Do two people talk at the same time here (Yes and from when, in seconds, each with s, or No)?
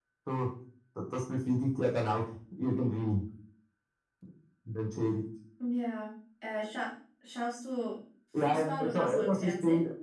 Yes, from 8.3 s